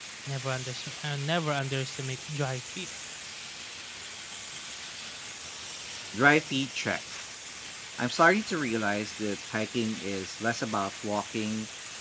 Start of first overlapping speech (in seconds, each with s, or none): none